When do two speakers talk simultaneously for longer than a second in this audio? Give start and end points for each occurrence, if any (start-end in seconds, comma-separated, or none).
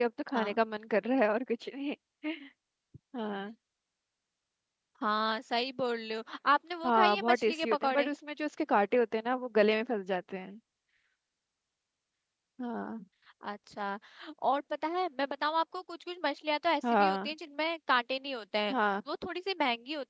6.8-8.1